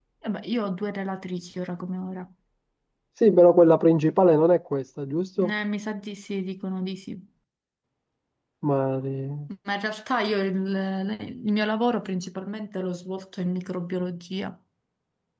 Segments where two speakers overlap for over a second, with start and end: none

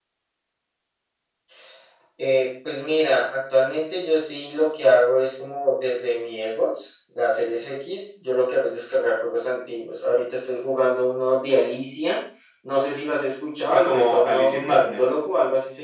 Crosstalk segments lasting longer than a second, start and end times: 13.7-15.2

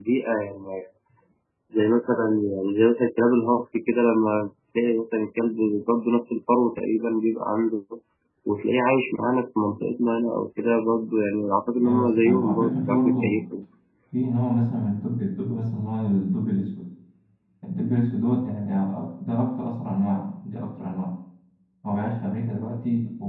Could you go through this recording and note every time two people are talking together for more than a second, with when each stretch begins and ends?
11.8-13.4

